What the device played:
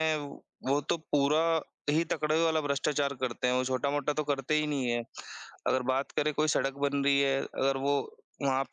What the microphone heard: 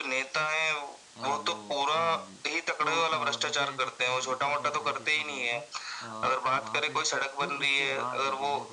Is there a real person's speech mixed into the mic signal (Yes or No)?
Yes